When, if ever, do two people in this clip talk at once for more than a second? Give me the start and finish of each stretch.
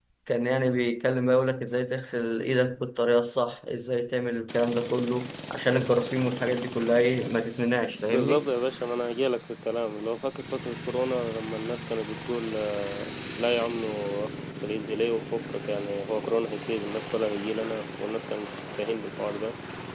none

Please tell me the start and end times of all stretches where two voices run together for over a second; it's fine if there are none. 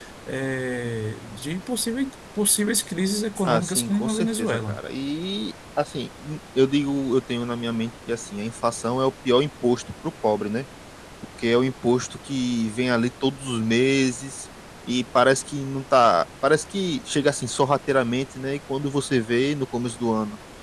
3.5-4.8

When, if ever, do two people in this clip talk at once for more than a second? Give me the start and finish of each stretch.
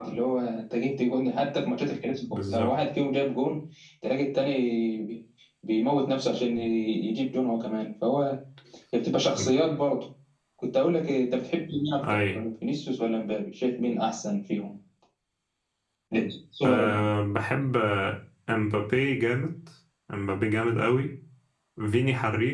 none

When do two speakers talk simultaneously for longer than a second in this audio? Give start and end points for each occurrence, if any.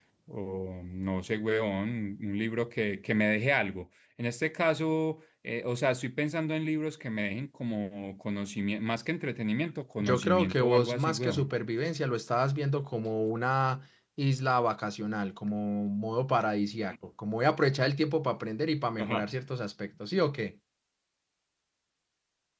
10.0-11.5

